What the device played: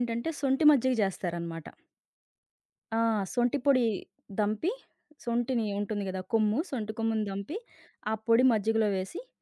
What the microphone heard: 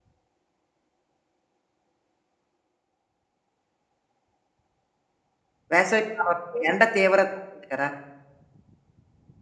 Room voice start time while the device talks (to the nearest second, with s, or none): 6 s